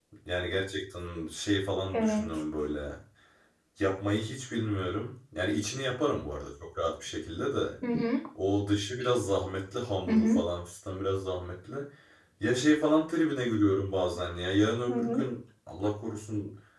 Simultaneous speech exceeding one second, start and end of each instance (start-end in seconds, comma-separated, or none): none